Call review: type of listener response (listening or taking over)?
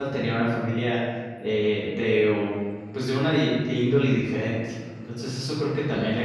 listening